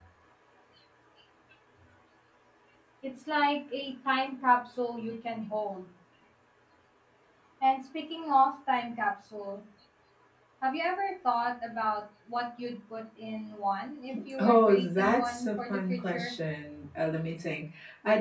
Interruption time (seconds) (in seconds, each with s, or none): 14.4 s